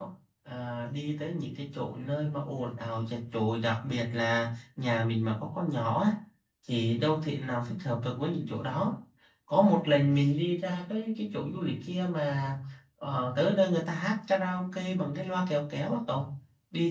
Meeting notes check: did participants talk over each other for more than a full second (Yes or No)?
No